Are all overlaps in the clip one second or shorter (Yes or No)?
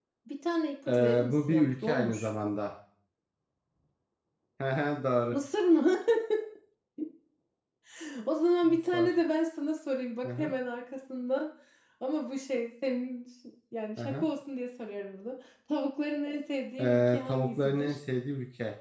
No